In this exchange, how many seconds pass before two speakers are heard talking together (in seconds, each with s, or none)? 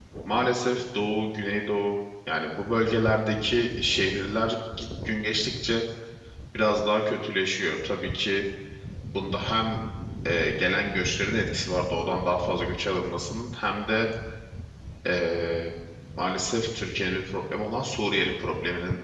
none